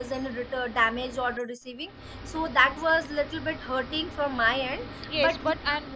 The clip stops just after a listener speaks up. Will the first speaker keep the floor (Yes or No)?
No